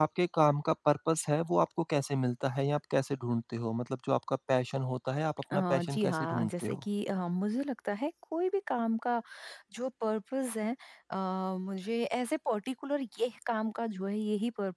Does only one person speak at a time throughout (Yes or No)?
No